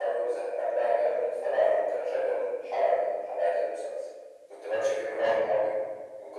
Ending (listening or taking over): listening